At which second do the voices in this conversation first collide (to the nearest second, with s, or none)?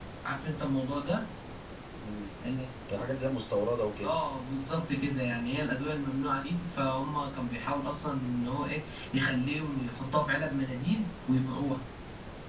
none